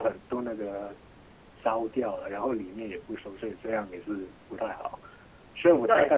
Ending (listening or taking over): listening